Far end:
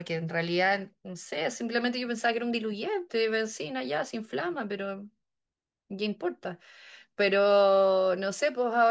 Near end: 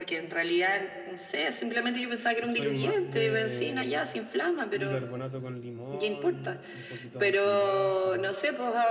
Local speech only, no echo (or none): soy más de bicarbonato con limón, un poquito de antigrasa,